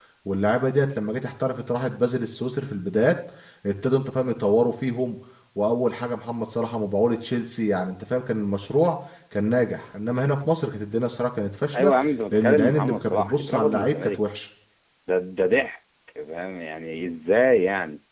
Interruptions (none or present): present